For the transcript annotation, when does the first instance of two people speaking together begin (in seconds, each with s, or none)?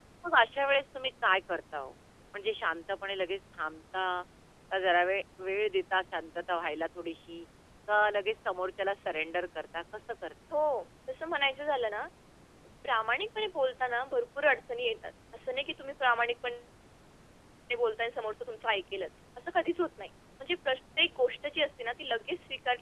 none